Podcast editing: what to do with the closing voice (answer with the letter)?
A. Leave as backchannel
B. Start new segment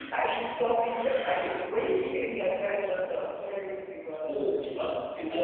B